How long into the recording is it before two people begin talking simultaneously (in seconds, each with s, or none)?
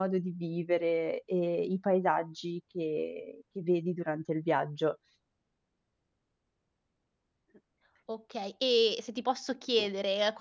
none